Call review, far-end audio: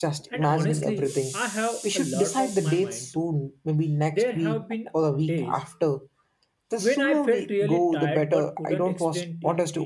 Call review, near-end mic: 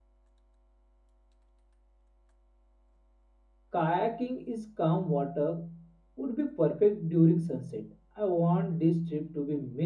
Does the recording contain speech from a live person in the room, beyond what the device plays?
Yes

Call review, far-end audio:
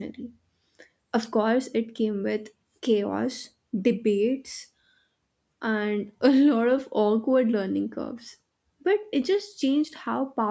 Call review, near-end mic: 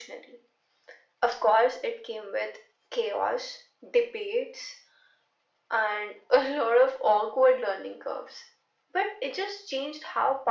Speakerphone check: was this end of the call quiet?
Yes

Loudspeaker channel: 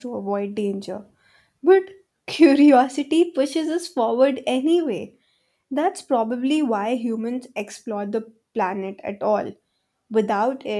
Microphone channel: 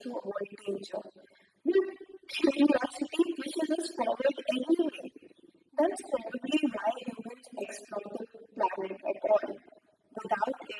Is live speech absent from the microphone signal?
Yes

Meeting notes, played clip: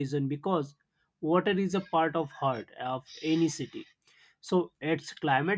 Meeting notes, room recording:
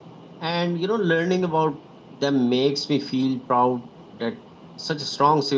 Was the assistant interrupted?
Yes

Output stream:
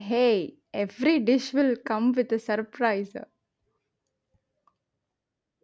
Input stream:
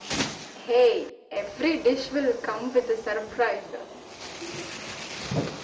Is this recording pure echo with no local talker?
Yes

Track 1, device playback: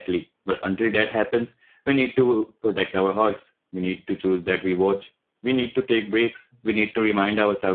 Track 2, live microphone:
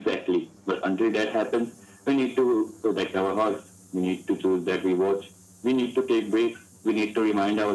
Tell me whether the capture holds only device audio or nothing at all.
Yes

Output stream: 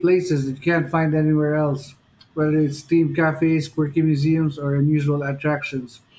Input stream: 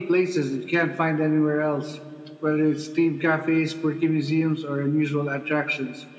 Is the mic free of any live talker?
Yes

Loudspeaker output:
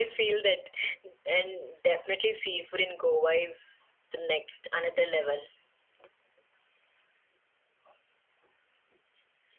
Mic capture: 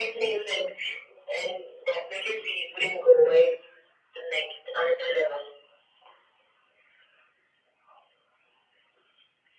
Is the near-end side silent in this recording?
Yes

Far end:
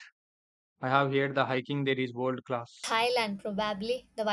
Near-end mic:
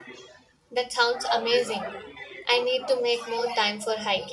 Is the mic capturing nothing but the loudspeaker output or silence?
No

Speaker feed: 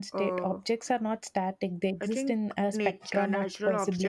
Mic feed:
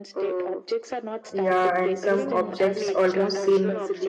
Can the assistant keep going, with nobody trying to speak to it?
No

